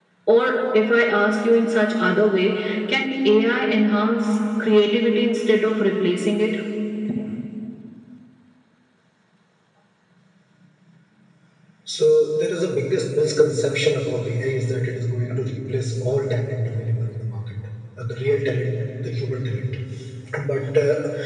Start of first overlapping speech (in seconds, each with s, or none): none